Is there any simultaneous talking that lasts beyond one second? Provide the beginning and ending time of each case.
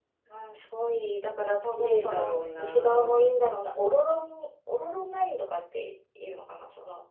1.8-3.4

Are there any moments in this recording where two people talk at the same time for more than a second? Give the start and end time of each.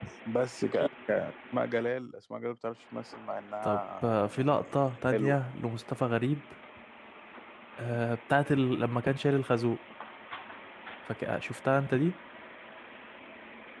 3.6-5.4

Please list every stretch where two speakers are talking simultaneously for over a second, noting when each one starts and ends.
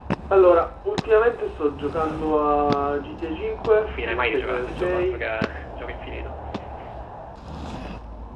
3.8-5.2

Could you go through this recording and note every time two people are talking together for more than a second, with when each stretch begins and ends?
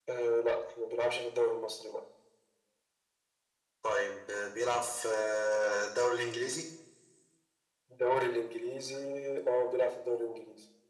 none

